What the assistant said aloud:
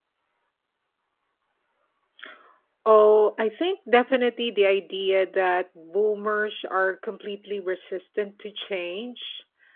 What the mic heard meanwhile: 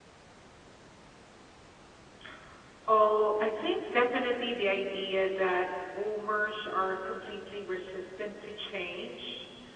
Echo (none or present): present